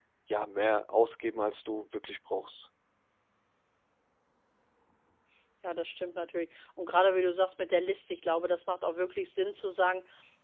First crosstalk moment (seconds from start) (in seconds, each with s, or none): none